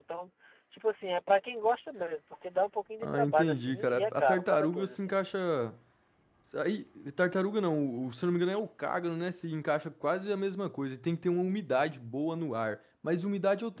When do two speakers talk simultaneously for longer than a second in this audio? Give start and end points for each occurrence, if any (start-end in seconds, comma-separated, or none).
3.0-5.2